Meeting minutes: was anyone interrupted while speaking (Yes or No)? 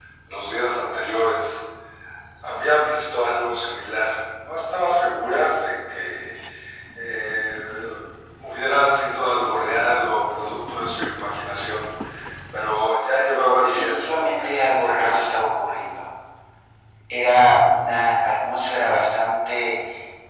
Yes